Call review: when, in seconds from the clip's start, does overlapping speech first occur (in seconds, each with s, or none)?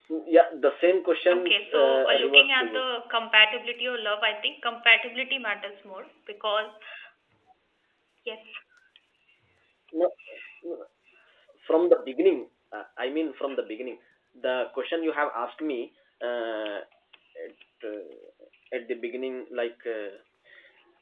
1.2 s